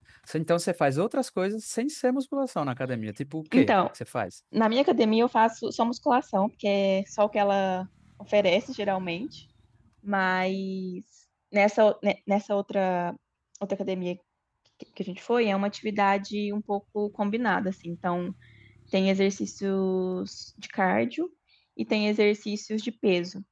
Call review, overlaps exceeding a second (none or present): none